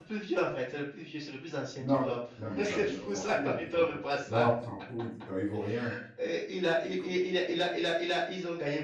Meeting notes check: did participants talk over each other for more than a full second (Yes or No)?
Yes